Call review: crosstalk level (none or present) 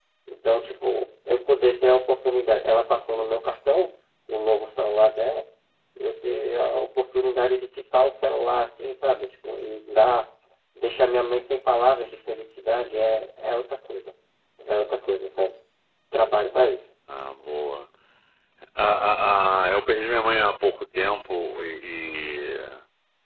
none